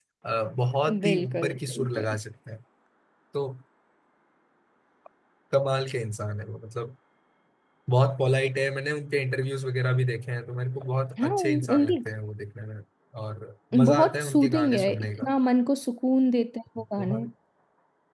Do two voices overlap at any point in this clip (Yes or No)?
Yes